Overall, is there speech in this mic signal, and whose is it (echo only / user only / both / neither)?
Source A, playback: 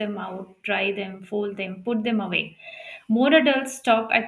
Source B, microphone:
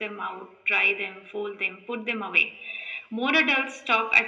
echo only